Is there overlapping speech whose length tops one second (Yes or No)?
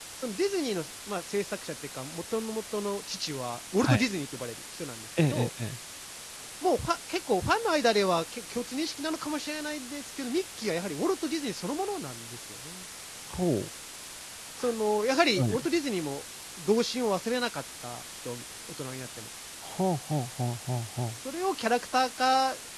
No